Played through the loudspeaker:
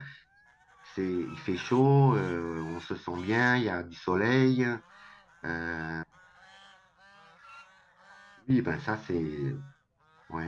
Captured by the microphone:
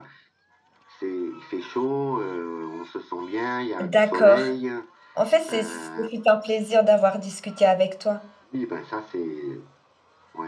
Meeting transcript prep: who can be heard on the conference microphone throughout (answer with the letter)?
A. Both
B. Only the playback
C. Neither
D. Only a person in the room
A